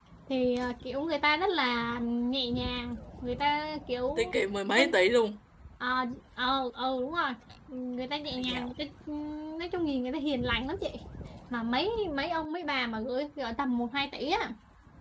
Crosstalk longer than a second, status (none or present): none